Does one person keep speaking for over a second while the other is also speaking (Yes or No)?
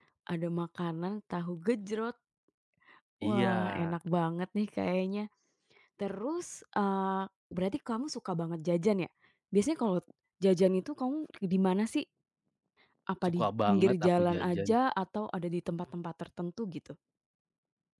Yes